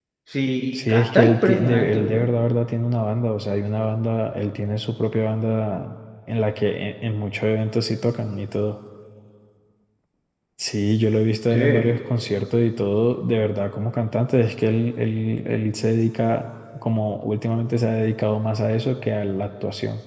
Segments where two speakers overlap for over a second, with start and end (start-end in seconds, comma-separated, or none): 0.7-2.3